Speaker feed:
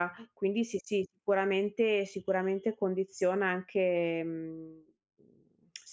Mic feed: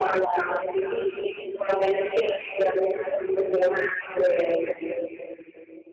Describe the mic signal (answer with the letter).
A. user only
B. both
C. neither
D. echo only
D